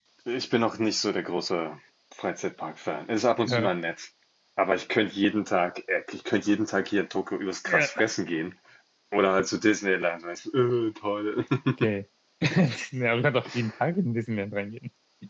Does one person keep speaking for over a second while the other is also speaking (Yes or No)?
No